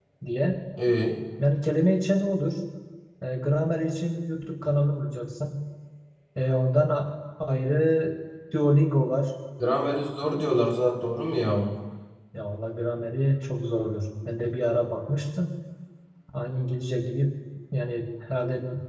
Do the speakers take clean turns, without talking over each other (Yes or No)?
Yes